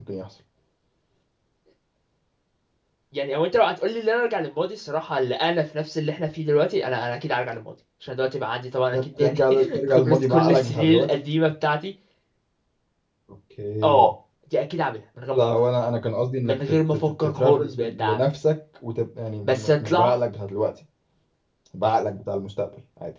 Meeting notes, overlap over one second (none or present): present